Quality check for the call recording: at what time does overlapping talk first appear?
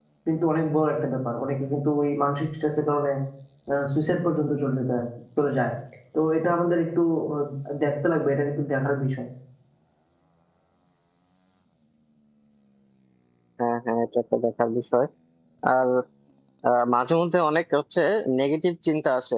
none

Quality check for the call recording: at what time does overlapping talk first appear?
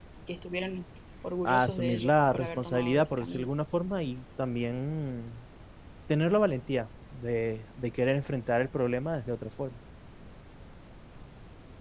1.4 s

